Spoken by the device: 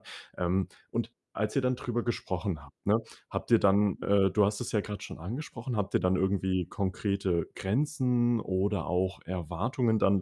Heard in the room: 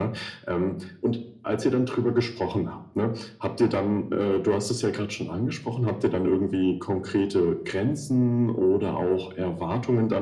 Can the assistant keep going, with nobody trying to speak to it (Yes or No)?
Yes